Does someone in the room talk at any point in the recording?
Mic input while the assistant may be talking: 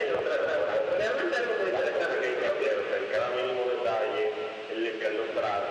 No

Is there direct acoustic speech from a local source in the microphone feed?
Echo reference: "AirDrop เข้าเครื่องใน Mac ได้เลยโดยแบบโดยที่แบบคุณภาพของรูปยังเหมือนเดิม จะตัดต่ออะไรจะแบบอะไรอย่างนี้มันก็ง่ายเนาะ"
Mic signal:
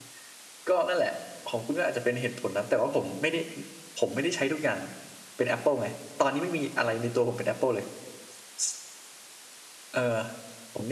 Yes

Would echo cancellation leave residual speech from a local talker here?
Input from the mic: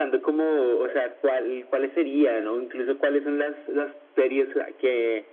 No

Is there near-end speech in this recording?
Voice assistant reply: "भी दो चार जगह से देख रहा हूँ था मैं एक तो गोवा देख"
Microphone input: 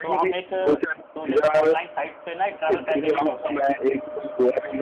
Yes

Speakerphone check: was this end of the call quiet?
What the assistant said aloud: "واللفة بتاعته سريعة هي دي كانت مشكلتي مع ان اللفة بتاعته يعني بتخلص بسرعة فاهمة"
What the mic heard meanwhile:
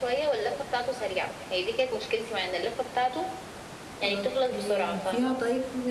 No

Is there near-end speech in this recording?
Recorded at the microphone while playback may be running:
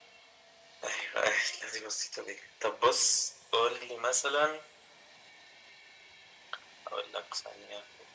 No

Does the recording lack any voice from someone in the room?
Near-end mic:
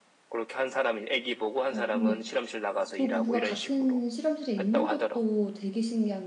No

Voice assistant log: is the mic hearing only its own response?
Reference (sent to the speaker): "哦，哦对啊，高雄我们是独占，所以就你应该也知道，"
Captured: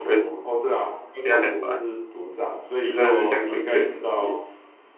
No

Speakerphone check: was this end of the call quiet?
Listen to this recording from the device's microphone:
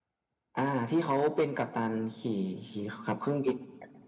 Yes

